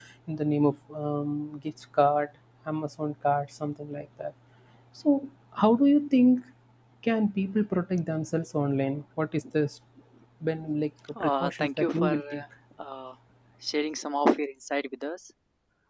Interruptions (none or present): present